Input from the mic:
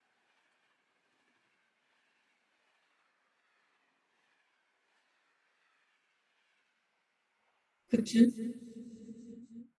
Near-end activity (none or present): present